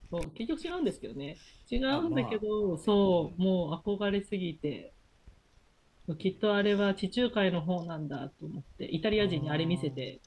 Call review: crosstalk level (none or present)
present